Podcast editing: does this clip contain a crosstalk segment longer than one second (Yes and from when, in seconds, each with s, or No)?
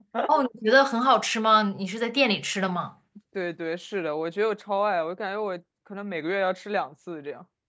No